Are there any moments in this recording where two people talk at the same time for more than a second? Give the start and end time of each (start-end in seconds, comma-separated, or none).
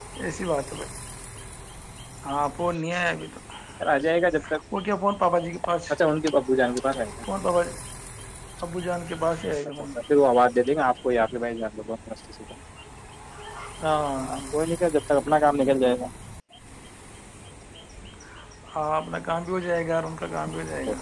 none